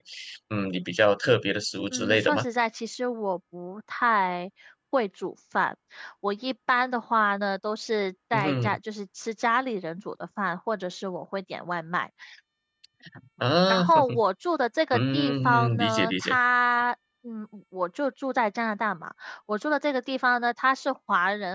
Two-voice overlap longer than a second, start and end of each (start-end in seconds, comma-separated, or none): 14.9-16.4